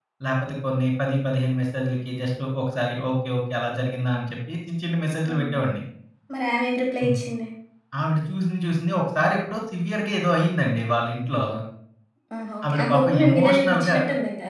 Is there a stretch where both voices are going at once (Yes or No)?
Yes